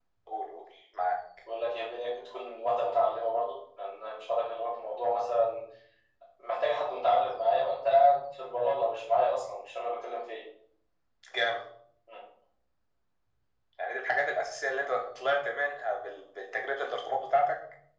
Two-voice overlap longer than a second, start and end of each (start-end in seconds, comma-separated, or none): none